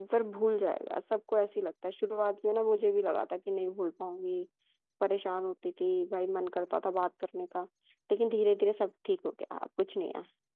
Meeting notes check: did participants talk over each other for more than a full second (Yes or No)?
No